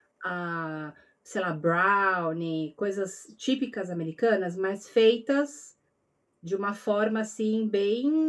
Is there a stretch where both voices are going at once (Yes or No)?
No